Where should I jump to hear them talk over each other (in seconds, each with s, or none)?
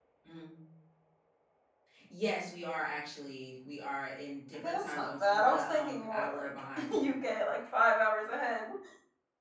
4.6 s